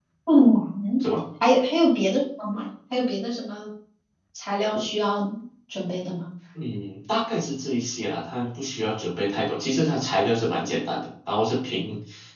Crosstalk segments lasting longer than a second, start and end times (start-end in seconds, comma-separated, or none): none